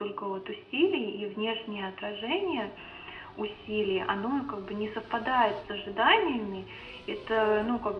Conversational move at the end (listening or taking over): listening